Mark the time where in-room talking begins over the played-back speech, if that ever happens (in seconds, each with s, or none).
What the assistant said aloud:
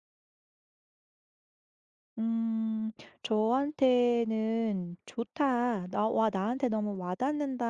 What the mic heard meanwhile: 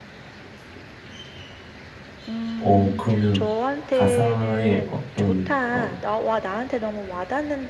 2.6 s